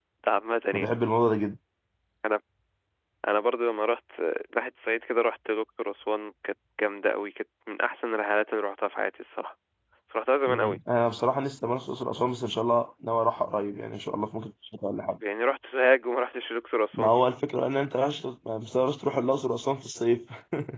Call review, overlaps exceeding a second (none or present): none